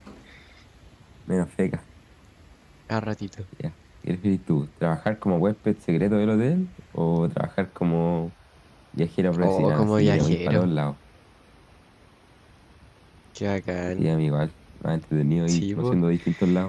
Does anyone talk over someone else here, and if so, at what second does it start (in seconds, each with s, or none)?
9.4 s